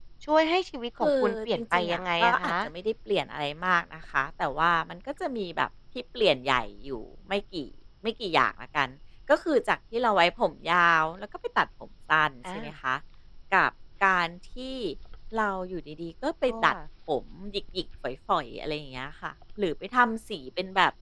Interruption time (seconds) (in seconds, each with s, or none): 1.0 s